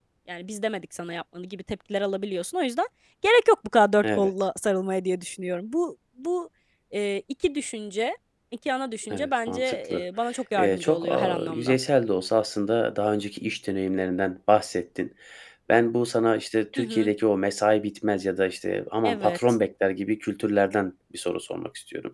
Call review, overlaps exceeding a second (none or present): present